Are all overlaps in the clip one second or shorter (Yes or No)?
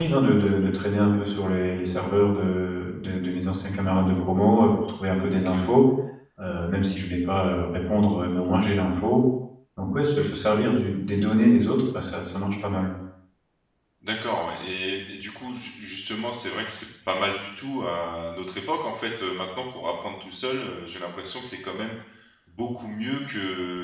Yes